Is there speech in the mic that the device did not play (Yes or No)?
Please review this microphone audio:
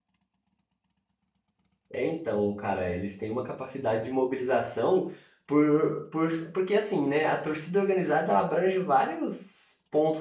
Yes